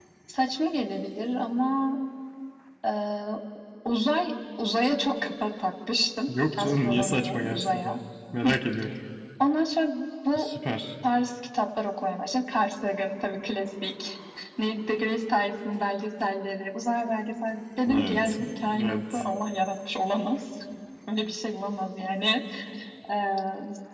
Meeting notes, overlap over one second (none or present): present